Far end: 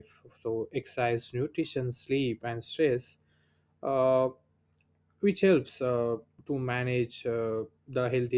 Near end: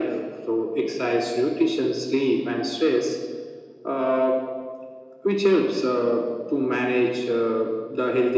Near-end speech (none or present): none